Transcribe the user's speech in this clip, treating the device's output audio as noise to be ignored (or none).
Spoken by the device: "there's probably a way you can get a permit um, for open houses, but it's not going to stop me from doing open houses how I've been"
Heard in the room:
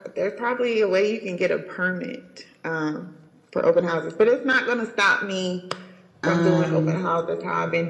Um,